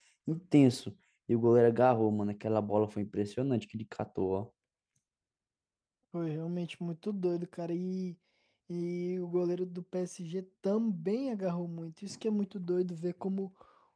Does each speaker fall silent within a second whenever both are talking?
Yes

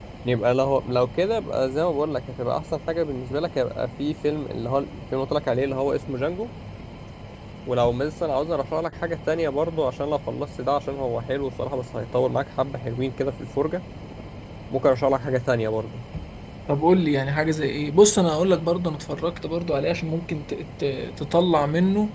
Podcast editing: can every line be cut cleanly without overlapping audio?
Yes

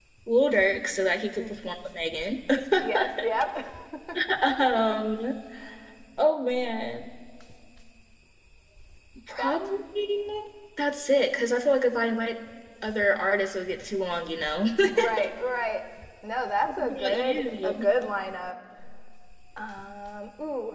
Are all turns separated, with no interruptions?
No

